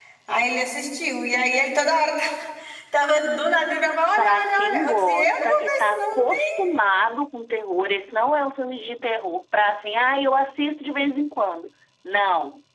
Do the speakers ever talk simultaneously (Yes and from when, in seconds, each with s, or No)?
Yes, from 4.2 s